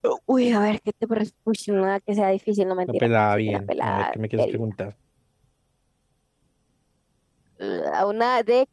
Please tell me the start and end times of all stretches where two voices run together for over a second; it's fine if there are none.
2.9-4.6

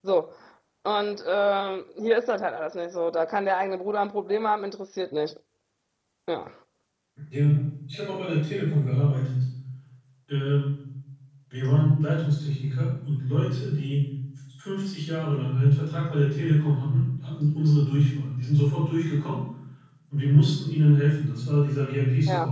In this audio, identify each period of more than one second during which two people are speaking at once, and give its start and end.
none

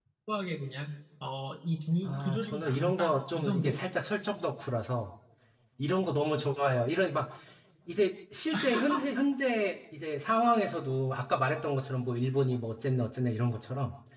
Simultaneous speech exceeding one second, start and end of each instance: 2.0-3.8

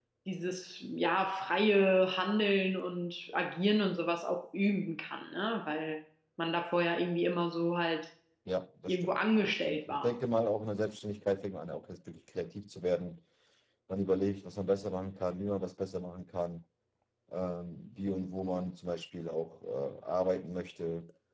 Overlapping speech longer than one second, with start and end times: 8.9-10.2

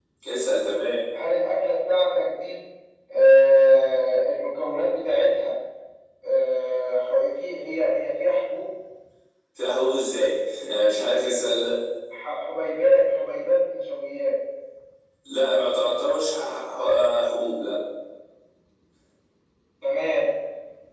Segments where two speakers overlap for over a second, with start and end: none

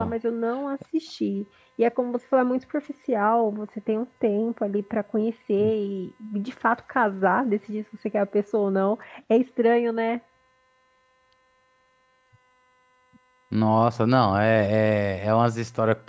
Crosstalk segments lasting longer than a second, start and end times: none

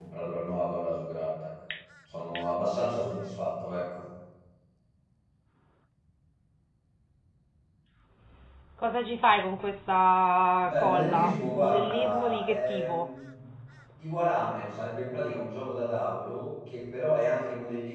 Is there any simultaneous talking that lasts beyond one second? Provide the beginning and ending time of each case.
10.6-13.1

